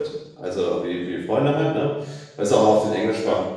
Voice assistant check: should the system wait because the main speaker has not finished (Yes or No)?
Yes